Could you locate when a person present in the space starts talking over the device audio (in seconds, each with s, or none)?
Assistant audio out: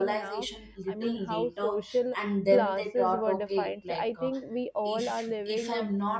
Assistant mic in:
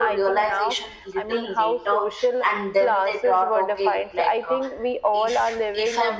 none